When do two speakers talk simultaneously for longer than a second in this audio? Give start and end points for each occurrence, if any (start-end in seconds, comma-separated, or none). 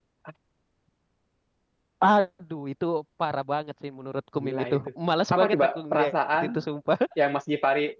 5.3-6.6